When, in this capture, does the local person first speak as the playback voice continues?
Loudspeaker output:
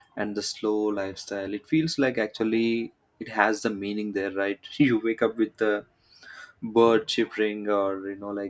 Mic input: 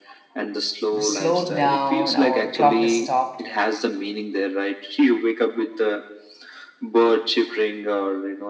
1.0 s

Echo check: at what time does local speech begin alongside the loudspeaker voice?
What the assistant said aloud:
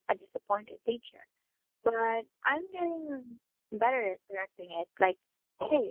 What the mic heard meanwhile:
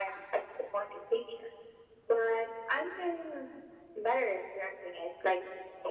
none

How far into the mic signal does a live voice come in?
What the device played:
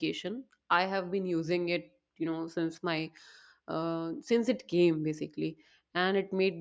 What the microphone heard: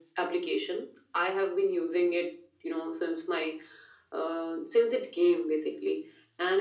none

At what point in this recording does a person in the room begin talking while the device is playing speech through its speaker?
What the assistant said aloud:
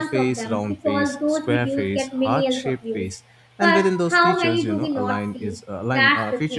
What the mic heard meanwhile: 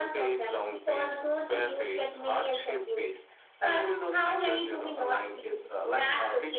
none

